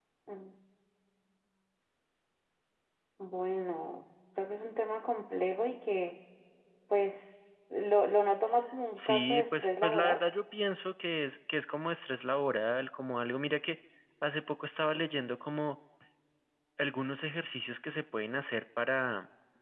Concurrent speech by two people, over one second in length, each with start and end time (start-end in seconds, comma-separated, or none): 8.9-10.2